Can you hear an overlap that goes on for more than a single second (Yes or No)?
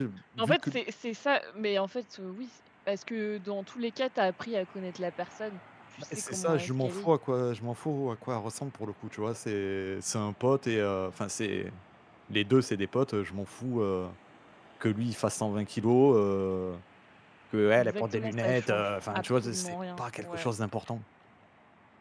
Yes